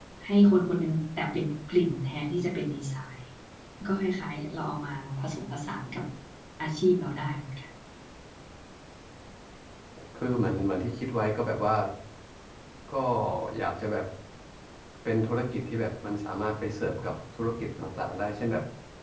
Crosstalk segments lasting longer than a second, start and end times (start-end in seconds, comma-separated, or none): none